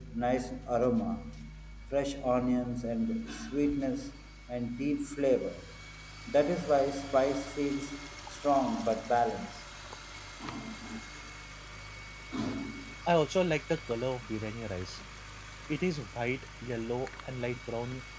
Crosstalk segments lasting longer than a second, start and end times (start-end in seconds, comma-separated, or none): none